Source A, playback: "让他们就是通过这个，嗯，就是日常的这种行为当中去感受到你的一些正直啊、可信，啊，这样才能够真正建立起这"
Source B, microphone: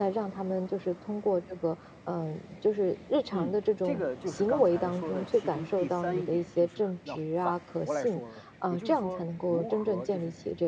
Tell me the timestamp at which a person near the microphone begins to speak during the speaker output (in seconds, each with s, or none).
3.3 s